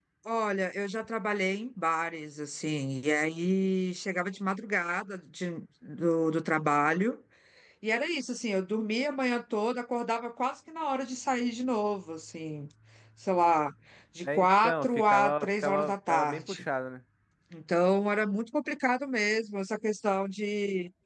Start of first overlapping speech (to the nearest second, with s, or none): 14 s